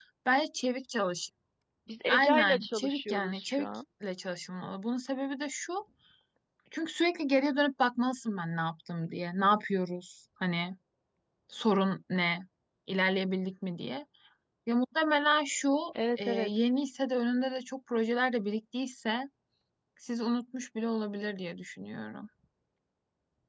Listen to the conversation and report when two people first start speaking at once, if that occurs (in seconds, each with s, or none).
2.1 s